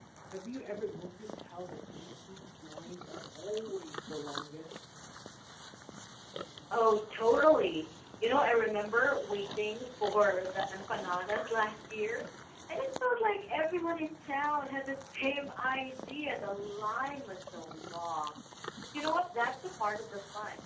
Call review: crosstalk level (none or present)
none